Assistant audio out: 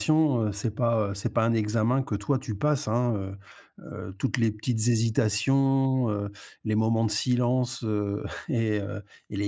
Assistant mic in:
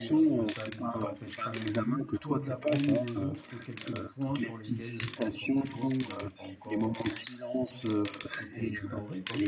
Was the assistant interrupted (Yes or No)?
Yes